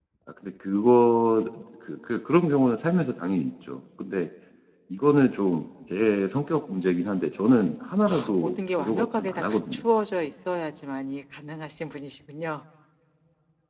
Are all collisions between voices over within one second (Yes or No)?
No